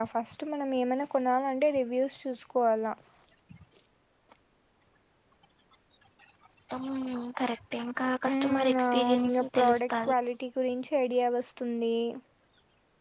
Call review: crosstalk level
present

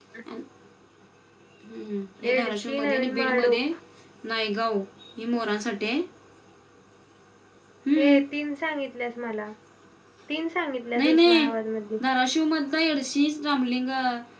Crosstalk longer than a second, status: present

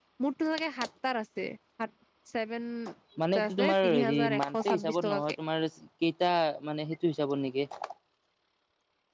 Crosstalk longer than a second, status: present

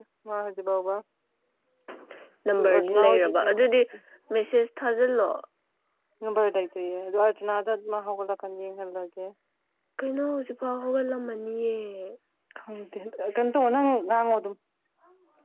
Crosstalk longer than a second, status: present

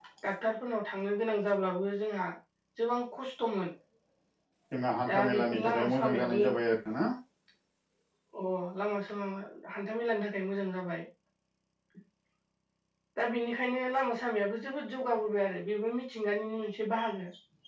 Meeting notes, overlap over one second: present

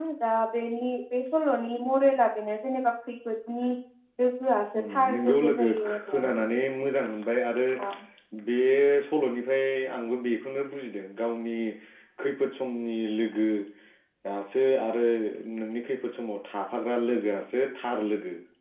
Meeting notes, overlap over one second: present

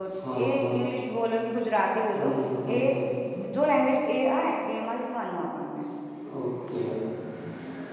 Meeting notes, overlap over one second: none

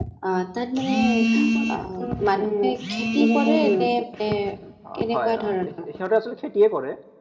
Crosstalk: present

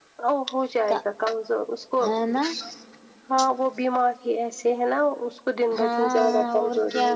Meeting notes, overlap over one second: present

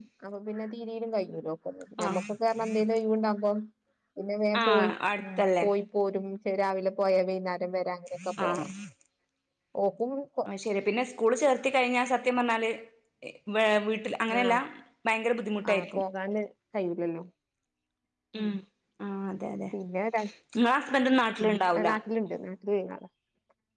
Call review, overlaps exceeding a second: none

